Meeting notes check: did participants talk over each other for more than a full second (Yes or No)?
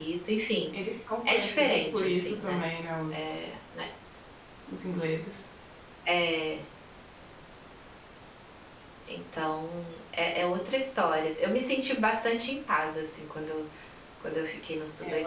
Yes